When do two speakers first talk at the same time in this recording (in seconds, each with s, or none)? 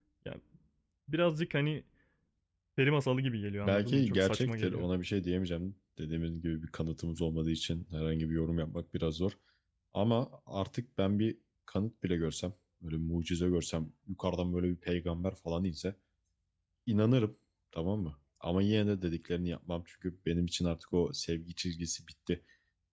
3.6 s